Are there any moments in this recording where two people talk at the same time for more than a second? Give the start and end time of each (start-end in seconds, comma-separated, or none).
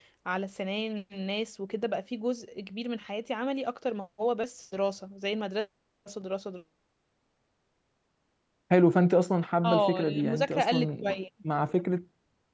9.6-11.0